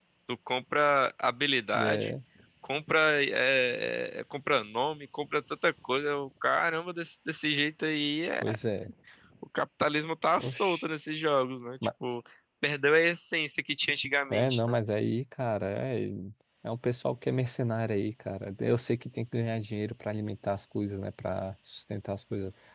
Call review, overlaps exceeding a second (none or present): none